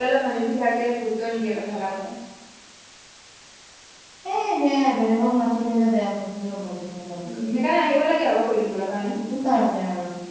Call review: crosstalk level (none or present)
none